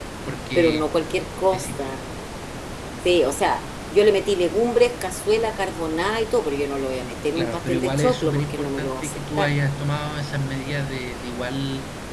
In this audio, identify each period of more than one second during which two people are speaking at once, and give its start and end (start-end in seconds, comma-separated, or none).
7.3-9.5